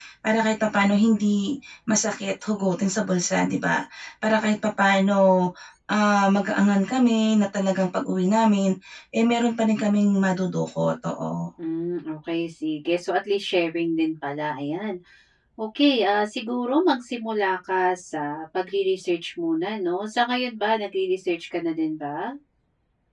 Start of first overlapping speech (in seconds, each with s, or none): none